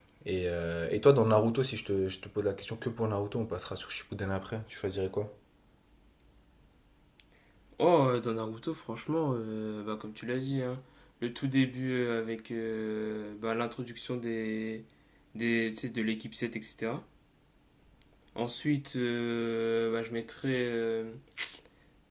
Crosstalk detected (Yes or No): No